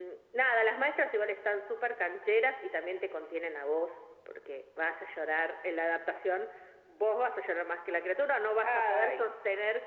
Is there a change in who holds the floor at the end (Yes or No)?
No